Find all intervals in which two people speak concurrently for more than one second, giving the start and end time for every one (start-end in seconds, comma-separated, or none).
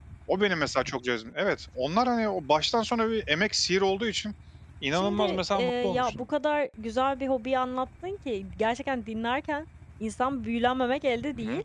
4.9-6.2